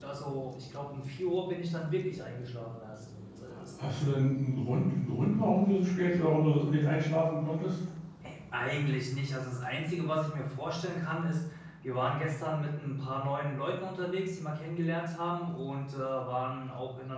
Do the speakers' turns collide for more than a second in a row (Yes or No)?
No